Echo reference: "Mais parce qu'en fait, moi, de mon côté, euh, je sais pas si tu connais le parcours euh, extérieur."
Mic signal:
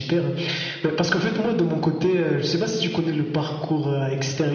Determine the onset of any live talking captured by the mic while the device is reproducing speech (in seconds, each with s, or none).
none